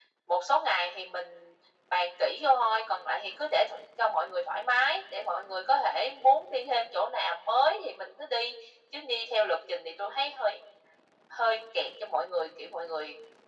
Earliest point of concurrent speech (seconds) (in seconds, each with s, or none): none